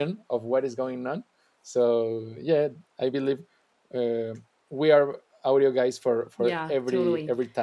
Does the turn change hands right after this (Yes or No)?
Yes